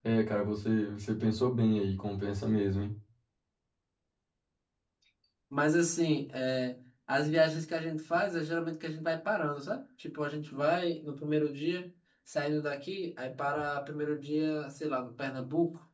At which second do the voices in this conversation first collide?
none

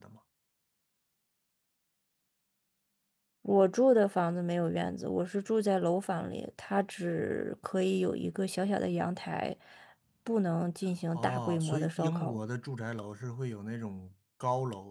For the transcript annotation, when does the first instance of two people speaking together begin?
11.1 s

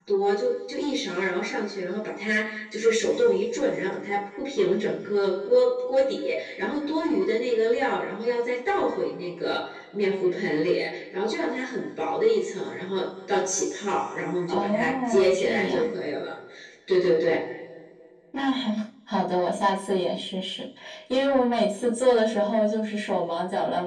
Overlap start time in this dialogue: 14.5 s

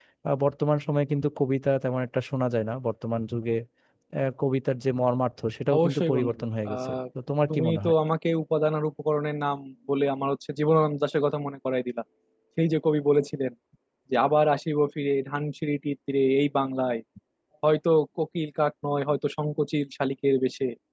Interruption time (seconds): 5.8 s

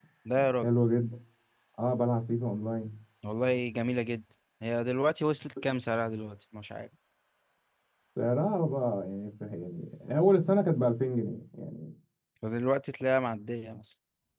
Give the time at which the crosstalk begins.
none

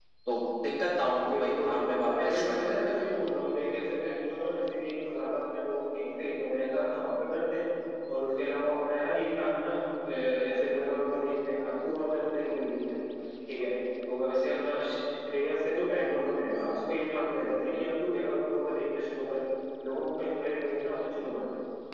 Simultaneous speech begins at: 1.3 s

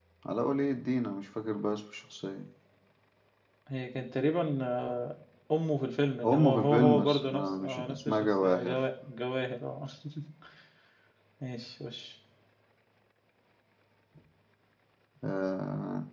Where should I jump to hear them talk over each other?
6.2 s

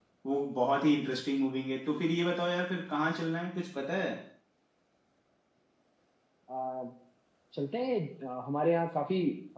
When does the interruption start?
none

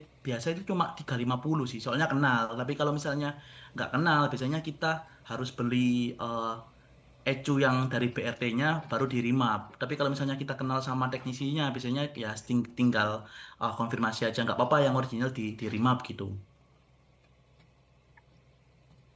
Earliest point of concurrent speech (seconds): none

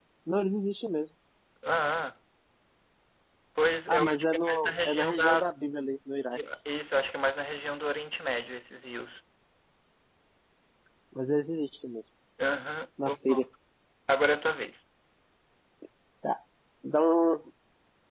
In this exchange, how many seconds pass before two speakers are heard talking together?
3.9 s

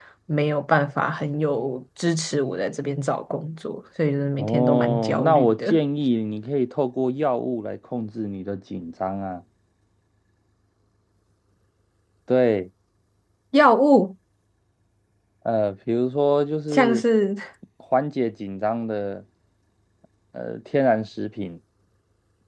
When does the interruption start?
4.4 s

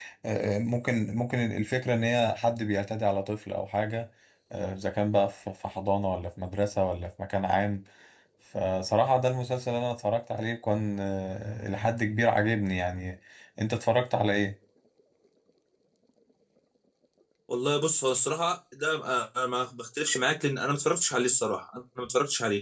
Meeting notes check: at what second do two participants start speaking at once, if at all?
none

